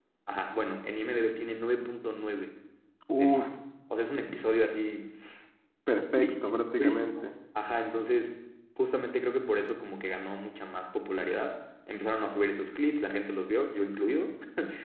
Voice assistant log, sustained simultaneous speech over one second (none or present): present